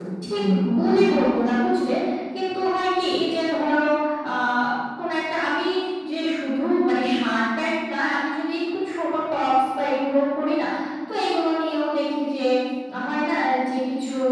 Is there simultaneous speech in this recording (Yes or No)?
Yes